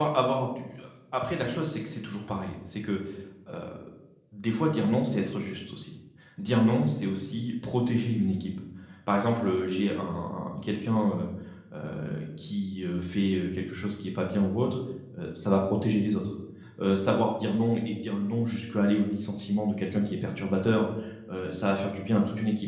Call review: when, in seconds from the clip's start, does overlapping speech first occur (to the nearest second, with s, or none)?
none